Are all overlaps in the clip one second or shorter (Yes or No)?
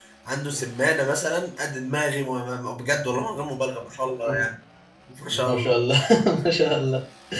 Yes